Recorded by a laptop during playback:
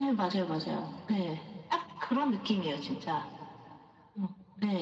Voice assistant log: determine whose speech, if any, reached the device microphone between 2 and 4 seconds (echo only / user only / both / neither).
echo only